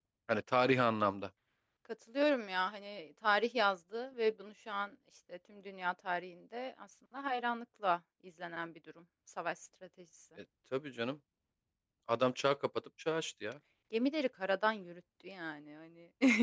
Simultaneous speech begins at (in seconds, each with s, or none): none